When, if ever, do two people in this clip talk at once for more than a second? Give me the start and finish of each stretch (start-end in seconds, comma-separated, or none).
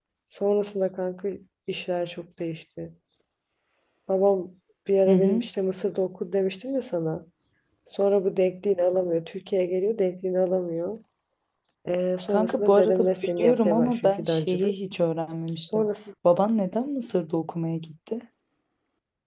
12.3-14.8